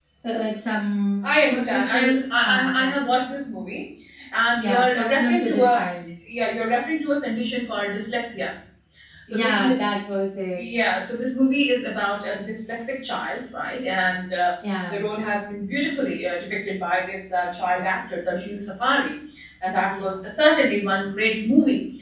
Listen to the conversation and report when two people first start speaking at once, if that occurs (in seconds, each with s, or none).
1.5 s